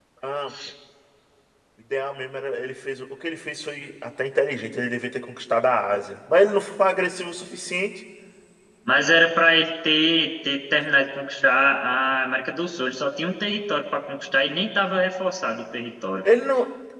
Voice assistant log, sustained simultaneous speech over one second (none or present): none